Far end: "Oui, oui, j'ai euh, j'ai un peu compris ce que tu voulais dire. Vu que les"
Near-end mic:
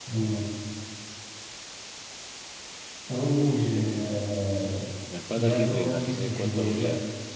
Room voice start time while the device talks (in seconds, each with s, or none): 5.1 s